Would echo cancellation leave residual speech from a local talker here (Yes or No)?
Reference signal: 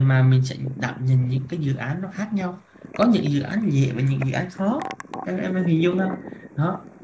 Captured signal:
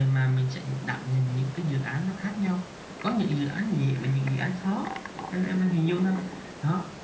No